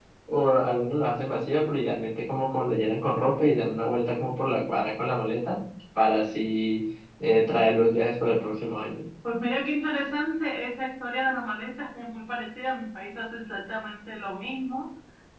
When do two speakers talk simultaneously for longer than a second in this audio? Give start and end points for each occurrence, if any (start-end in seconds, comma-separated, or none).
none